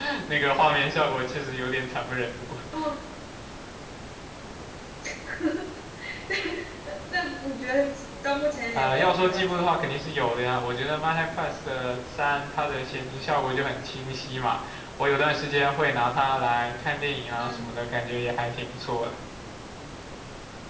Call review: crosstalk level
present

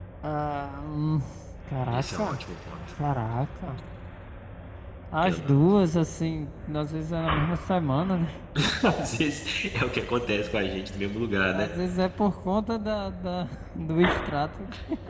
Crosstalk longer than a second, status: none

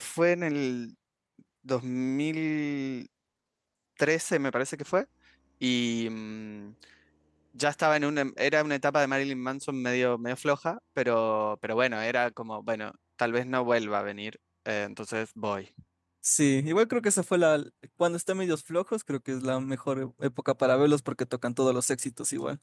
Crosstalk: none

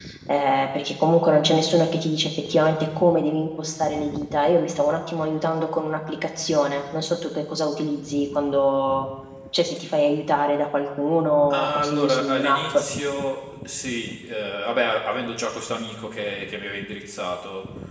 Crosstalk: present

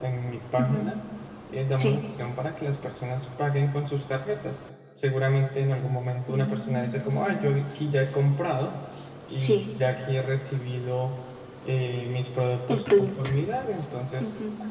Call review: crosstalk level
present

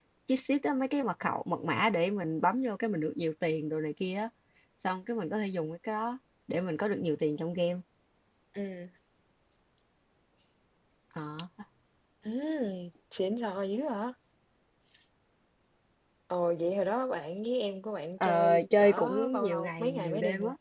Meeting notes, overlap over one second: present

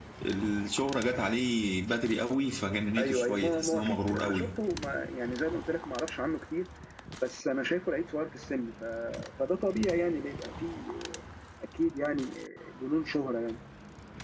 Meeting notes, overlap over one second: present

